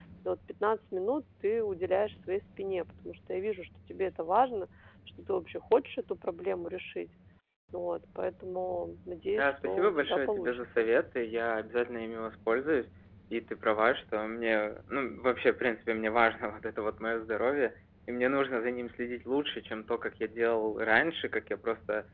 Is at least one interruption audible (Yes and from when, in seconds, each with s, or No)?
Yes, from 9.3 s